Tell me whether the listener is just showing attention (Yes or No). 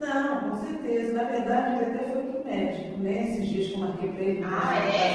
Yes